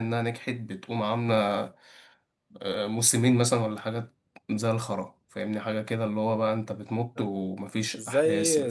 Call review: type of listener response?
taking over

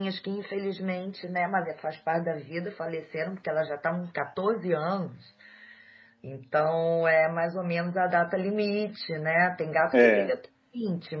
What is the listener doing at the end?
listening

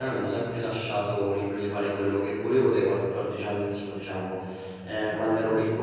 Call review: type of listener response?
listening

